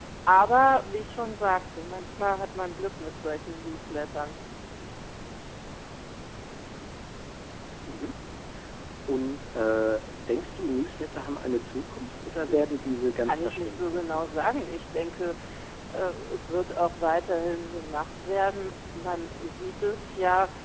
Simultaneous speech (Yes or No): Yes